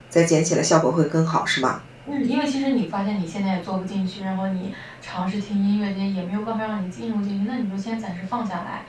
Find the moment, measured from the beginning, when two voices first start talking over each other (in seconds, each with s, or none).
none